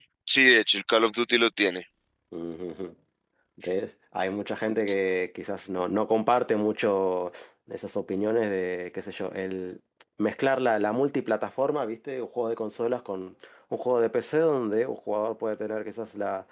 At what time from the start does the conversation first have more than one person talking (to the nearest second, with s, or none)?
none